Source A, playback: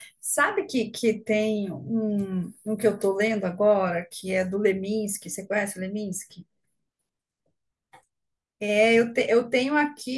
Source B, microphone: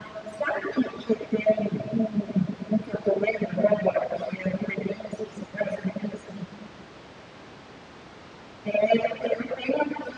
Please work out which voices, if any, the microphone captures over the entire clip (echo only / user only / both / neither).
echo only